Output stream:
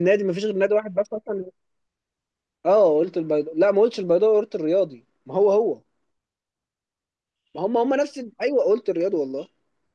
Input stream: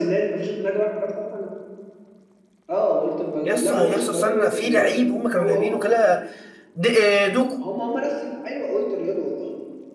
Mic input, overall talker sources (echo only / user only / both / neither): both